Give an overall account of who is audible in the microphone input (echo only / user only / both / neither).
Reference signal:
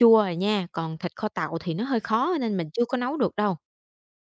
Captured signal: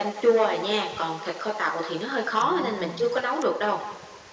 both